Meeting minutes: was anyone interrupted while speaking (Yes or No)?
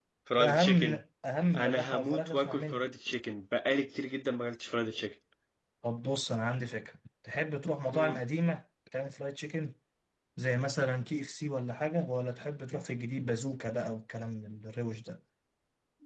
Yes